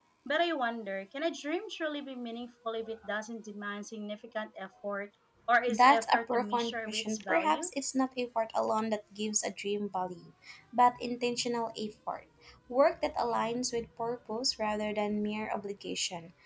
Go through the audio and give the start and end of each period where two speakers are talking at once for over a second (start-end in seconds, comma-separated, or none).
5.7-7.7